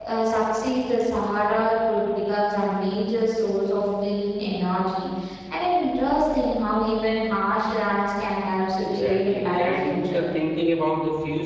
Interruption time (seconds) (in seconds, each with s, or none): 8.8 s